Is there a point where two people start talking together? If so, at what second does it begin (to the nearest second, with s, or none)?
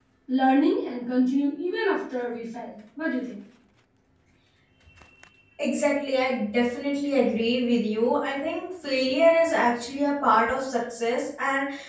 none